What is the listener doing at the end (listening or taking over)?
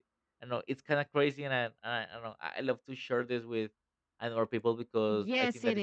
taking over